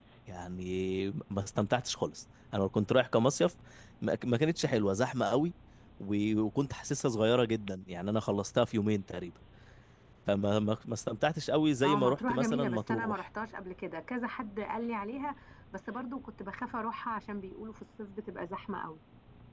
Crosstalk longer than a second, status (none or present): present